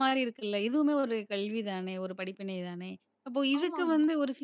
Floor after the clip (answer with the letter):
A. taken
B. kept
B